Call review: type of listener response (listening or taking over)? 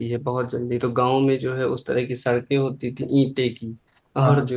listening